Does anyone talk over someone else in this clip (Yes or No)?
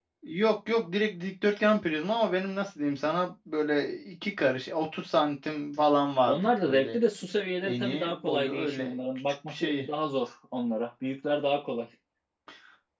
Yes